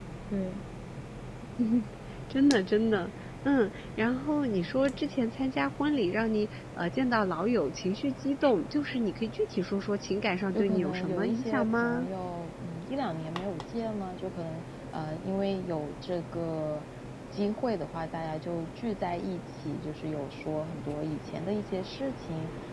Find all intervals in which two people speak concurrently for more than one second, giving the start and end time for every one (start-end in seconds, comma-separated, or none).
10.5-12.1